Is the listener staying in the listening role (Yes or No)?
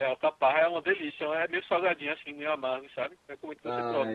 No